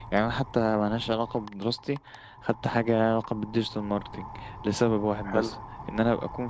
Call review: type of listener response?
listening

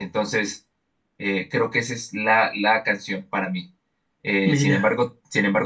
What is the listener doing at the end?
listening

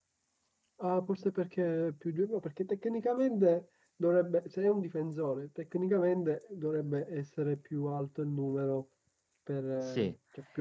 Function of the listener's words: taking over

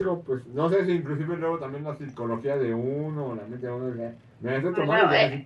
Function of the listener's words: listening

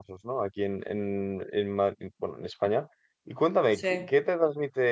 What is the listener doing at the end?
listening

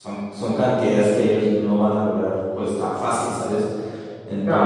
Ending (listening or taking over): listening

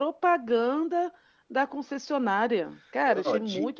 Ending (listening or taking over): taking over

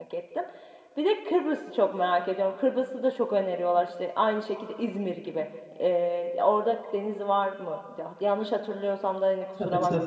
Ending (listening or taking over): taking over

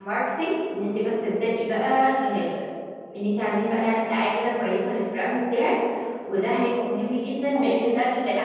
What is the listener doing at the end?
listening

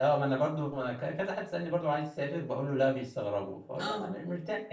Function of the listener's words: listening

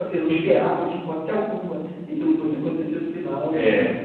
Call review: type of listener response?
listening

